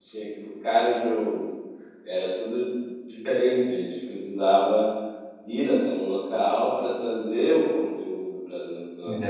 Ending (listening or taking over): taking over